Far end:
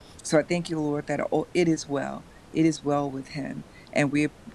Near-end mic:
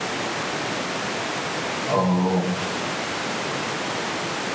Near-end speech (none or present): present